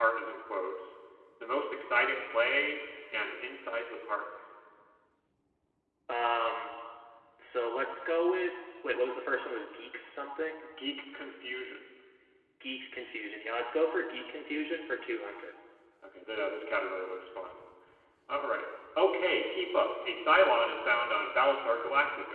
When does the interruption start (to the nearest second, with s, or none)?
none